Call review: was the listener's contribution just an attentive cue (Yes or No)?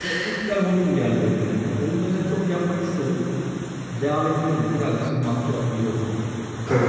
Yes